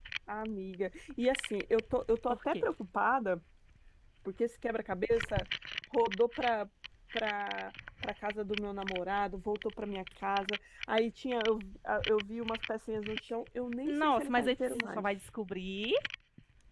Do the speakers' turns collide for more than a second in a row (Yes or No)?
Yes